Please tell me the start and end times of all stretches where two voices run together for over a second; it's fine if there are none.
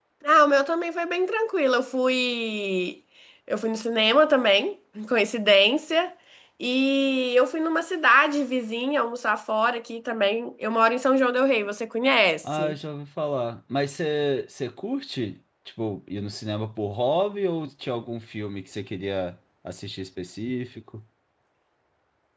none

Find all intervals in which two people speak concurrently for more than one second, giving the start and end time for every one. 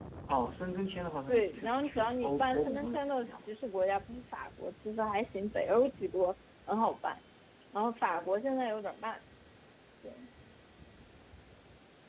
1.3-3.5

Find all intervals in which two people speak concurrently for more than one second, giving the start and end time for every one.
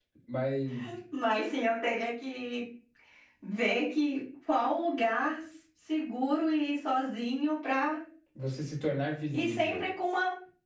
none

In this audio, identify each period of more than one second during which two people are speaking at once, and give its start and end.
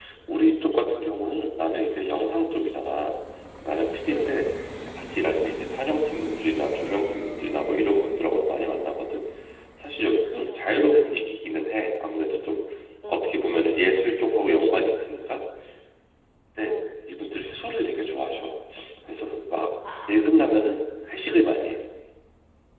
none

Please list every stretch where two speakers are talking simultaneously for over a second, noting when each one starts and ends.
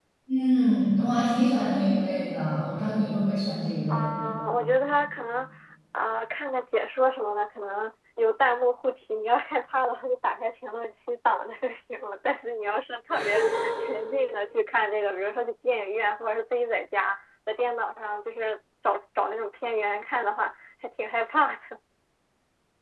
none

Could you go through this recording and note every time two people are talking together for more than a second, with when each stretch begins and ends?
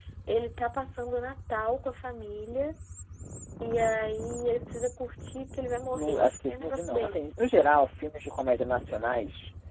5.9-7.3

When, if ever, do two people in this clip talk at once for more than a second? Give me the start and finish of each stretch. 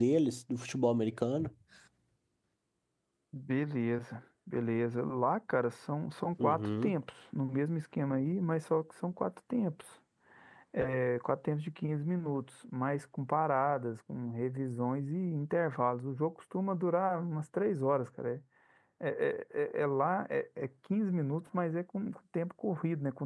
none

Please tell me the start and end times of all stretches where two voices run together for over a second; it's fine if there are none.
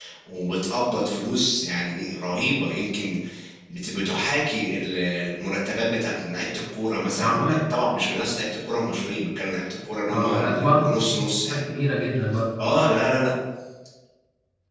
10.1-11.6

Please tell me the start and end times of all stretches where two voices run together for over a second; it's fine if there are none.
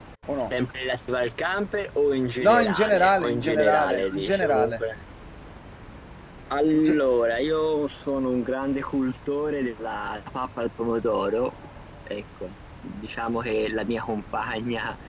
2.4-4.8

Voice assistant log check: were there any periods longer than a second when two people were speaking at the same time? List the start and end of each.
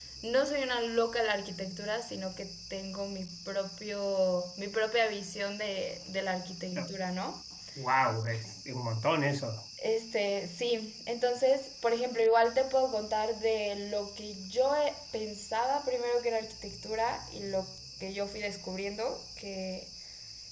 none

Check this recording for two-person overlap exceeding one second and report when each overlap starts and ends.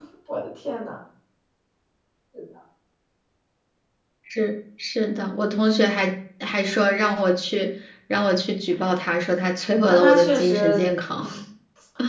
9.9-11.2

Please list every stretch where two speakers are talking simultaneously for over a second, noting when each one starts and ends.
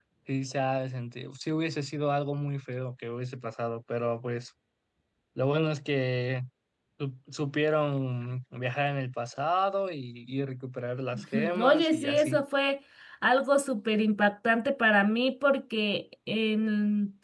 11.1-12.4

